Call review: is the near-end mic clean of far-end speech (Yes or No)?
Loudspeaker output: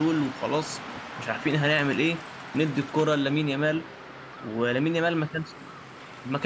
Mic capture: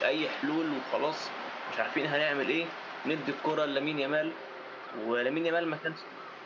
No